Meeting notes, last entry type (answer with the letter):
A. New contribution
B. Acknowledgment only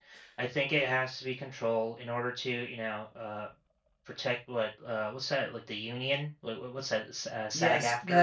A